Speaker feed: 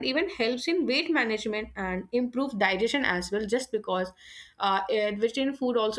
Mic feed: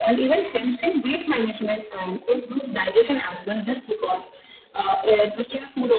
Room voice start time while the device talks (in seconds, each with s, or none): none